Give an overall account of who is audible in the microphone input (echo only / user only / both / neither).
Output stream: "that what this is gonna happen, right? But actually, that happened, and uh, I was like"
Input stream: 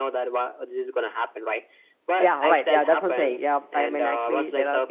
both